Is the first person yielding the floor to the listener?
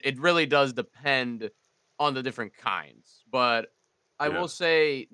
No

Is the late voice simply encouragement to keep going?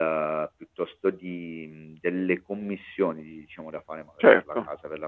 Yes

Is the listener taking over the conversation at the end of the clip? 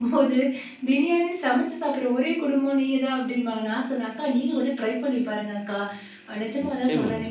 No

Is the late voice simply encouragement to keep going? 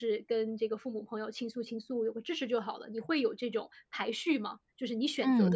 No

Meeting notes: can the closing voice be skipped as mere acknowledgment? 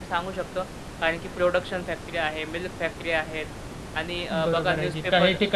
No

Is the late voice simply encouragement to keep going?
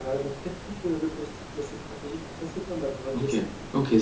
No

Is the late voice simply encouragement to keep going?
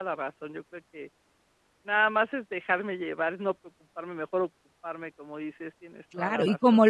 No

